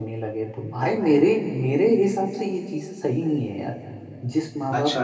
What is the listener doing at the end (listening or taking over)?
taking over